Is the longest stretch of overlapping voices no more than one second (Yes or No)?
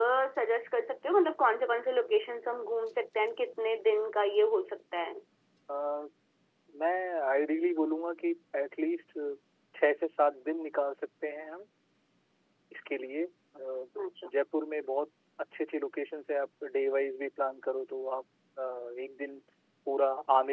Yes